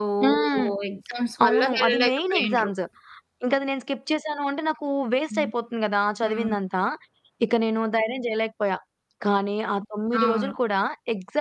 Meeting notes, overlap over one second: present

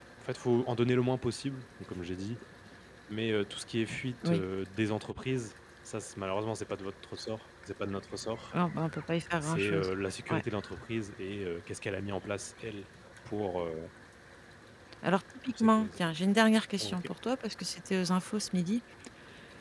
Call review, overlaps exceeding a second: none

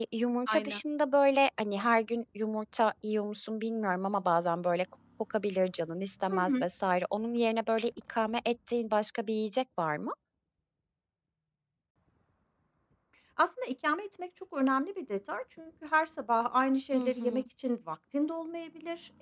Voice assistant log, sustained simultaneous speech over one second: none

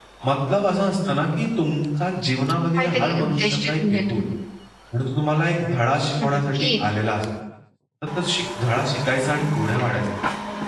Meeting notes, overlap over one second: present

